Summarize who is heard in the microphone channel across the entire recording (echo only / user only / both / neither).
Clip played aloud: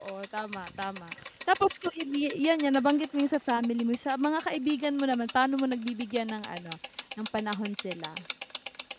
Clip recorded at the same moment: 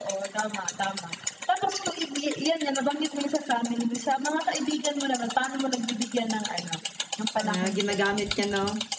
both